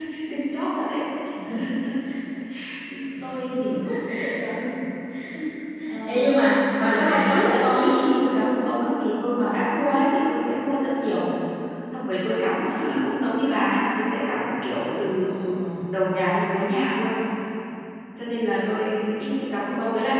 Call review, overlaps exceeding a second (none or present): present